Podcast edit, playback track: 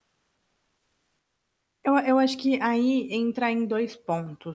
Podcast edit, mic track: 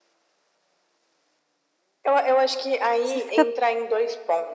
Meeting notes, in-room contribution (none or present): present